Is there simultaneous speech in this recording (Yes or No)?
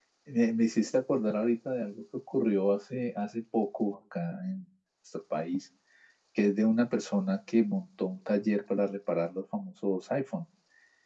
No